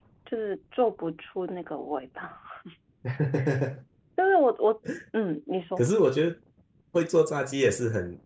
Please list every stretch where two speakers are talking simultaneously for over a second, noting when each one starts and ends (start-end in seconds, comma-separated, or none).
none